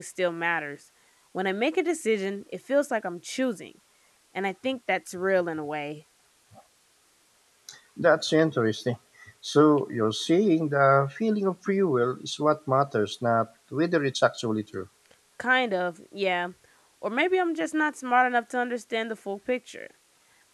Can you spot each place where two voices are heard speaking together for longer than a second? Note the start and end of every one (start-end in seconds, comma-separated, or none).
none